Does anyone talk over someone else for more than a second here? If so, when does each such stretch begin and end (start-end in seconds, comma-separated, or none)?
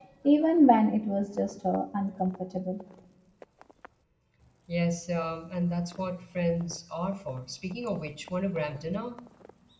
none